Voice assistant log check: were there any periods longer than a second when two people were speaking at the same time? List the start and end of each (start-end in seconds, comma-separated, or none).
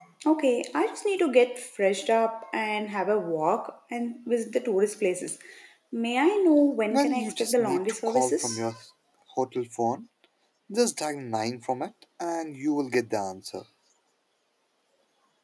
6.9-8.6